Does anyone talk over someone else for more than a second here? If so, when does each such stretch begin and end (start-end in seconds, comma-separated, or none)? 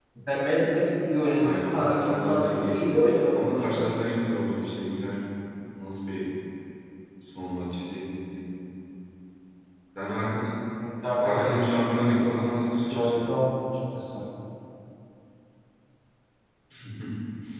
1.4-2.9, 11.2-13.3